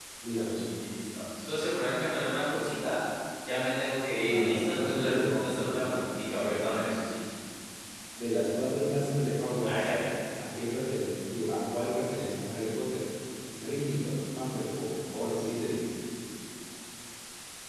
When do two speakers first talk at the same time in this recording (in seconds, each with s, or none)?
4.3 s